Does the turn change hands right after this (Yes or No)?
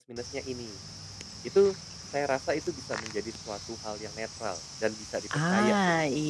Yes